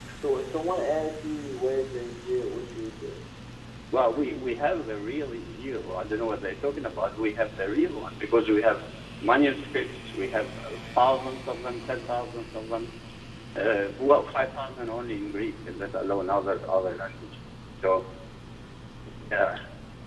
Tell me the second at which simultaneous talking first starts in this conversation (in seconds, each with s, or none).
none